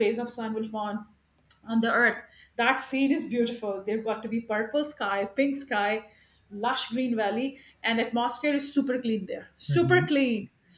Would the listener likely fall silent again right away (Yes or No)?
Yes